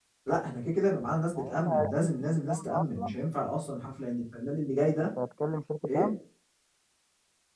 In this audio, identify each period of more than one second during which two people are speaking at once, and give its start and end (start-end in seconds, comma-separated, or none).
1.4-3.2